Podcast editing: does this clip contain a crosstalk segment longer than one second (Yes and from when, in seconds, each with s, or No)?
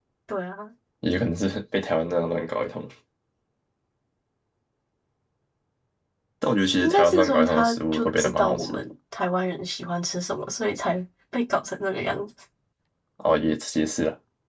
Yes, from 6.8 s